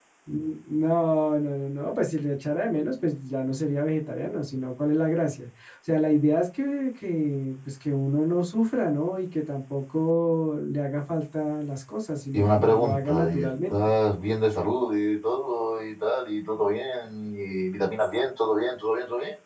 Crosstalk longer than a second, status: present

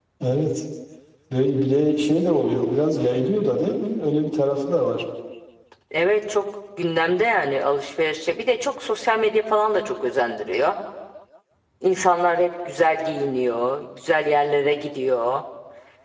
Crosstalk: none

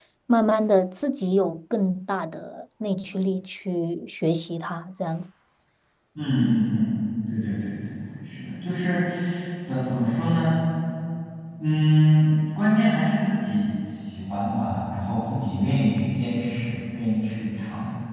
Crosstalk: none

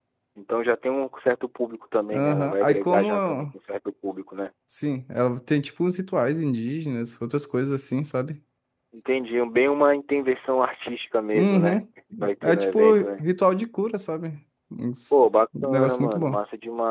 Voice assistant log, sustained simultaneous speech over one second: present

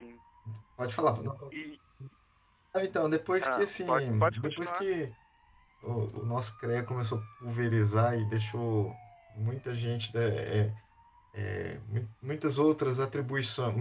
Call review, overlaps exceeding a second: present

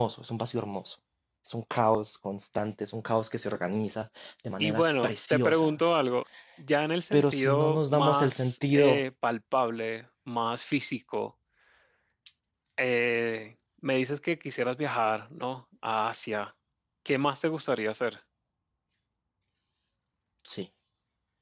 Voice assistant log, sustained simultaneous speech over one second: present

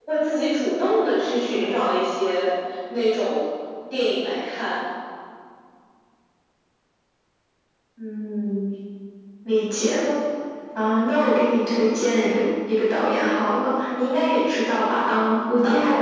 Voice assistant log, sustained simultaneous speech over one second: none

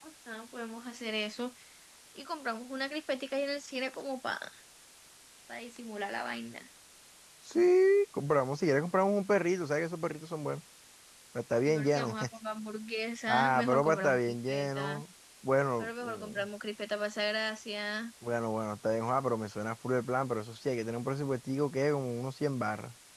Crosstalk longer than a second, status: present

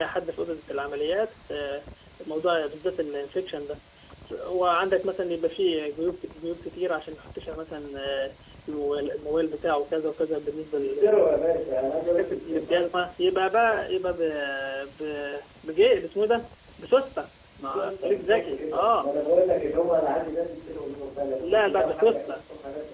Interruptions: present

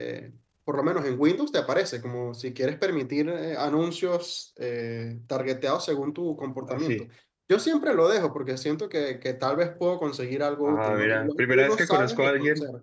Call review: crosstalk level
present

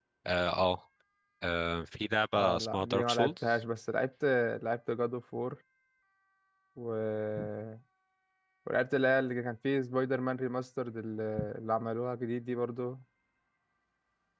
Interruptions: present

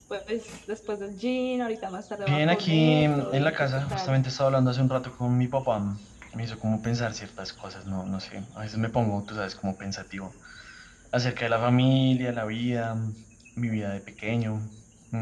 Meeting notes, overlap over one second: present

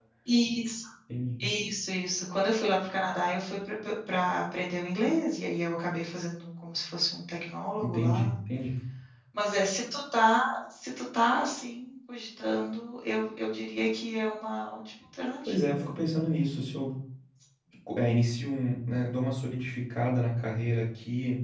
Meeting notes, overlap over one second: none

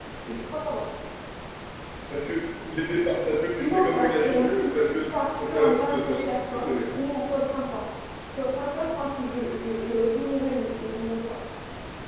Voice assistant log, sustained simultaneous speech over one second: present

